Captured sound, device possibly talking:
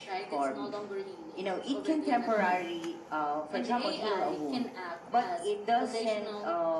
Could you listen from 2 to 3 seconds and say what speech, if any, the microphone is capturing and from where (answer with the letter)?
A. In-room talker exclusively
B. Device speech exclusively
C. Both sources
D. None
C